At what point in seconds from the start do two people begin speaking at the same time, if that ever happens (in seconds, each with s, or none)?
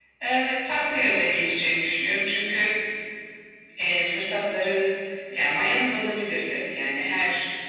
none